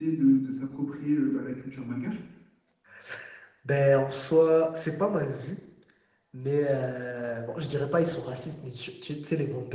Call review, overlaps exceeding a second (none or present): none